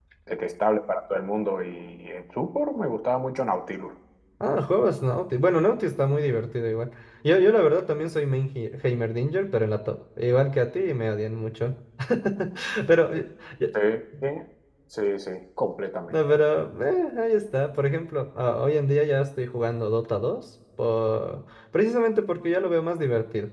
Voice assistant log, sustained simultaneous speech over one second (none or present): none